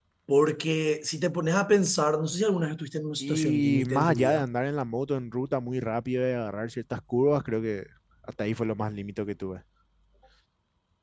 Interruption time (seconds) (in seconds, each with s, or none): 3.2 s